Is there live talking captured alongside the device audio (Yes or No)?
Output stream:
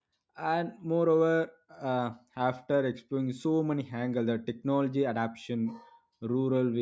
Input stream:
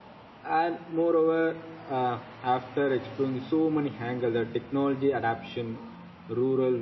No